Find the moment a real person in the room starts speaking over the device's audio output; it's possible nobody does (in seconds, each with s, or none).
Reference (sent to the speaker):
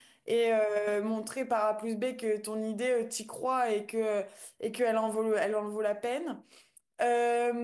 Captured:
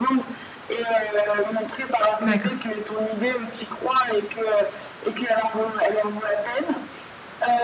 2.2 s